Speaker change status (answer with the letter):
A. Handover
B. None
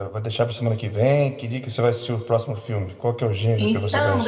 A